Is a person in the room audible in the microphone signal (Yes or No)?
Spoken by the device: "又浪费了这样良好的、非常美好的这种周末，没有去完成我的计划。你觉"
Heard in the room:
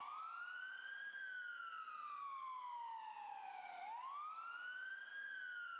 No